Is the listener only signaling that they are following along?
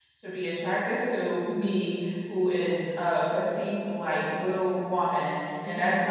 Yes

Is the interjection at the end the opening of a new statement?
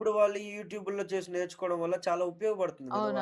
Yes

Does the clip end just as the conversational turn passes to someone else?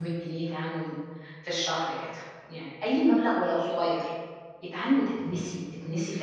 No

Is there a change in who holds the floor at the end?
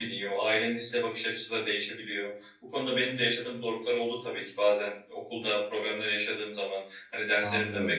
No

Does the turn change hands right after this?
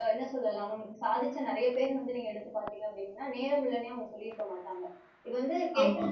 No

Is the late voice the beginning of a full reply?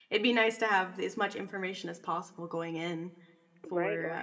Yes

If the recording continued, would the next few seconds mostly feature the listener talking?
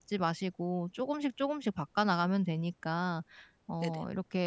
No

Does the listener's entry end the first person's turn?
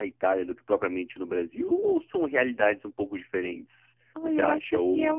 Yes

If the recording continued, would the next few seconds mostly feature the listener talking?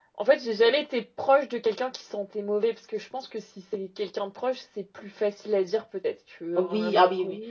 Yes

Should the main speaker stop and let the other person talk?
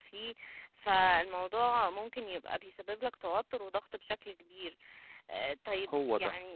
No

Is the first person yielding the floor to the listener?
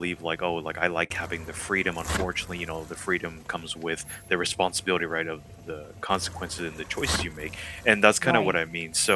No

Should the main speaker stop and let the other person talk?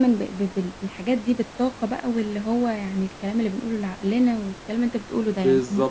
Yes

